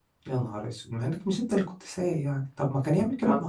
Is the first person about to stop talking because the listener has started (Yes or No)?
No